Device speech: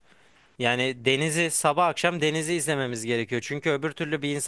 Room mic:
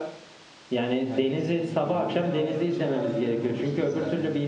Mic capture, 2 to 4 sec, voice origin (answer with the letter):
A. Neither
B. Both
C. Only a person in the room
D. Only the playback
B